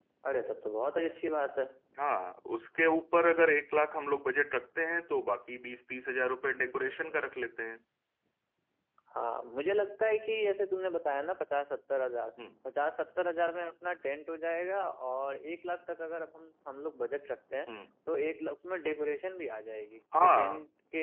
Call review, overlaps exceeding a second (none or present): none